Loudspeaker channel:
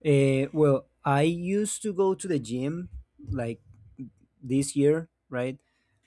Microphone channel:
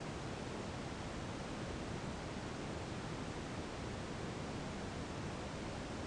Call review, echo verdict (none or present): none